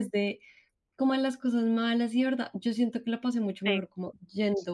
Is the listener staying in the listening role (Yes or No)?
Yes